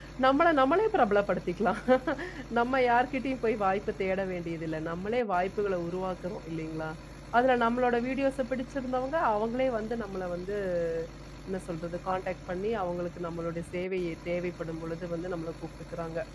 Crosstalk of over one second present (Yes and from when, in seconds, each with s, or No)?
No